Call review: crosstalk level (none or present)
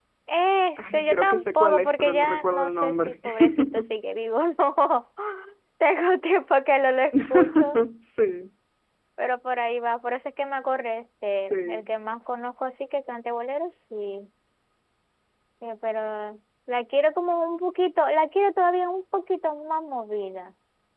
present